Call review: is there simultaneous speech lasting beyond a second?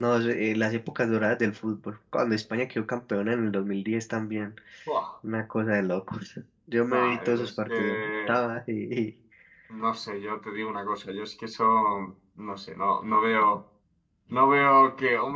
Yes, from 6.8 s

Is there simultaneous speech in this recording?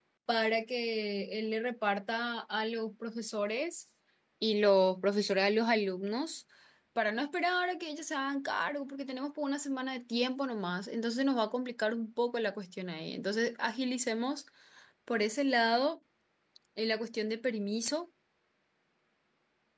No

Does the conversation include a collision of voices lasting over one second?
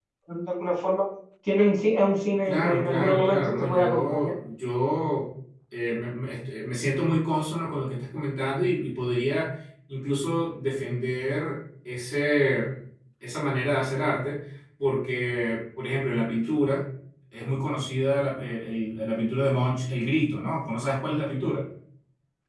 Yes, from 2.5 s

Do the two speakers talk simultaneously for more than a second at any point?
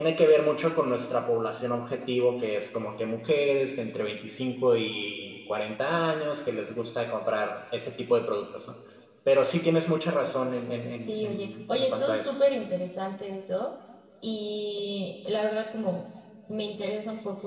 Yes, from 11.0 s

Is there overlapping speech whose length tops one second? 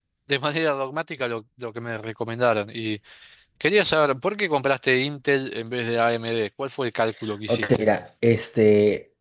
No

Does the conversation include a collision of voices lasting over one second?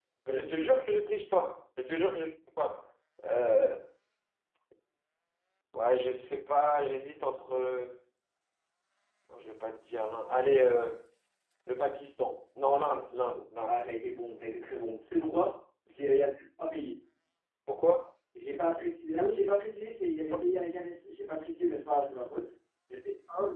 No

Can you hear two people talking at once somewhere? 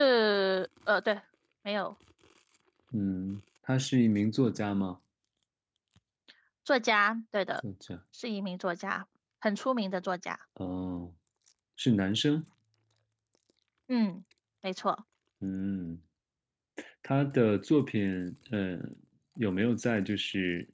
No

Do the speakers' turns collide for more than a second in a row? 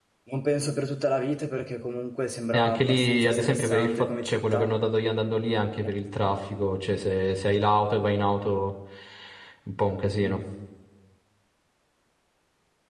Yes, from 2.5 s

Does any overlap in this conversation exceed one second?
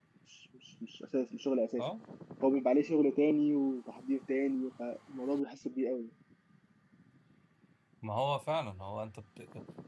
No

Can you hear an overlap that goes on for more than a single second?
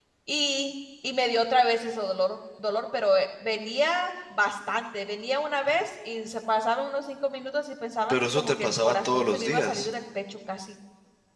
Yes, from 8.1 s

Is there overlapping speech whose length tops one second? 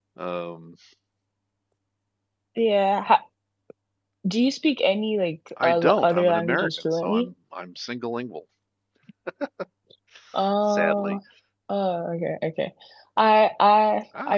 Yes, from 5.6 s

